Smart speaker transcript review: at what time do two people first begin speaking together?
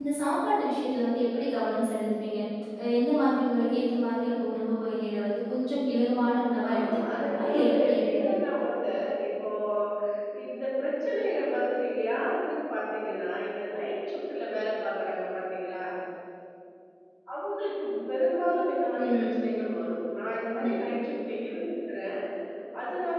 6.8 s

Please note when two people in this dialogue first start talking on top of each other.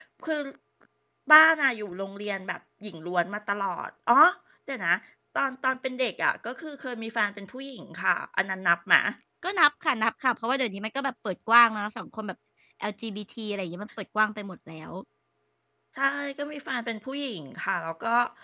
none

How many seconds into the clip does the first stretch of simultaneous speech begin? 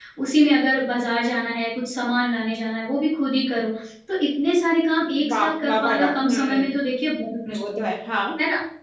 5.3 s

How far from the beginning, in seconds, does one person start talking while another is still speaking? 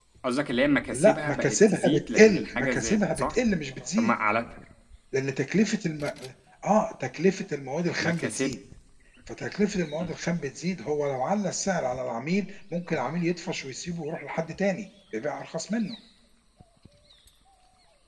0.9 s

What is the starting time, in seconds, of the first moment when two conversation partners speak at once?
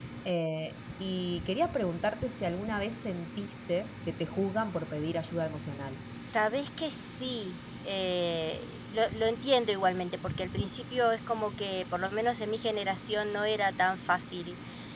none

